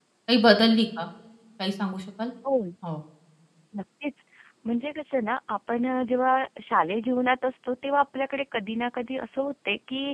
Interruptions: none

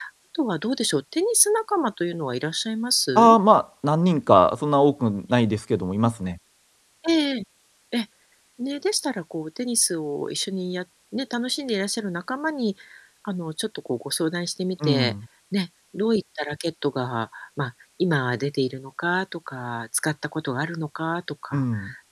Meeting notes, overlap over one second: none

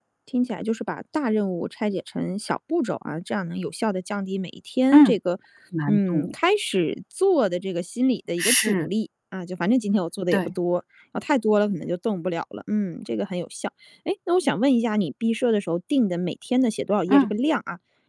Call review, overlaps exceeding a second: none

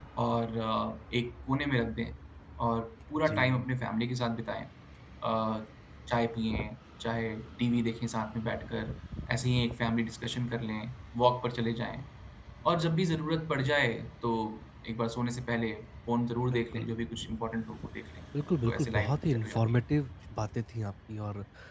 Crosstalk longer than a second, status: present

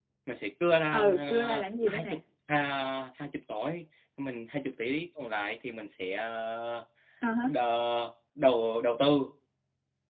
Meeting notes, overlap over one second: present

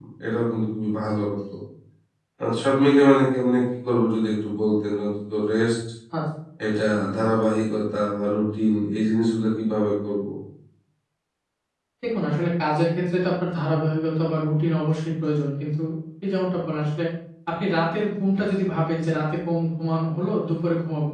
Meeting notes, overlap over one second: none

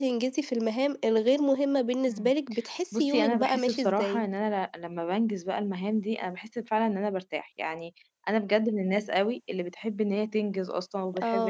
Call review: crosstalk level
present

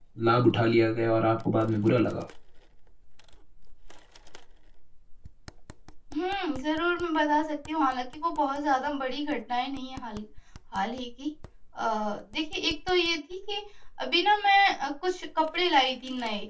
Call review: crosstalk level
none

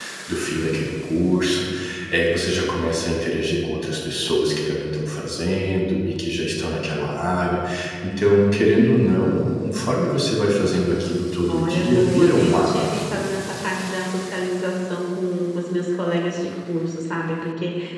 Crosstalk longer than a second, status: present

